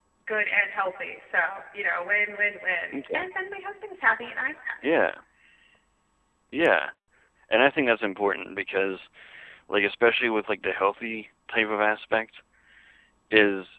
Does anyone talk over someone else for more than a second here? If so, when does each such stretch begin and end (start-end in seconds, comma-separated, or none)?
none